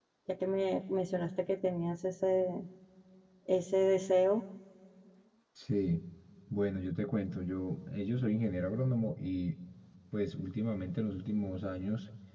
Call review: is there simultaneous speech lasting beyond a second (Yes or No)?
No